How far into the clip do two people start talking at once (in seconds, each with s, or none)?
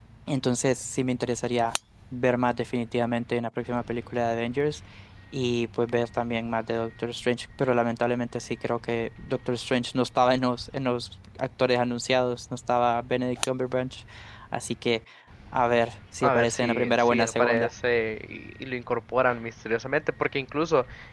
16.2 s